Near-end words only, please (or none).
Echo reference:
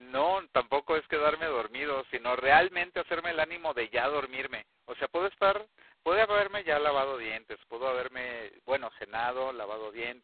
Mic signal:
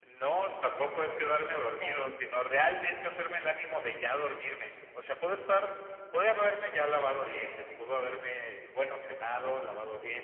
Sì.